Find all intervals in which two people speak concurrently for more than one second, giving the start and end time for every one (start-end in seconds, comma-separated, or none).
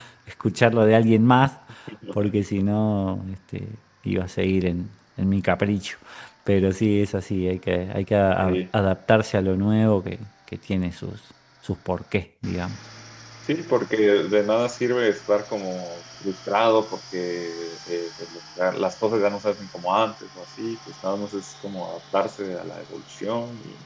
none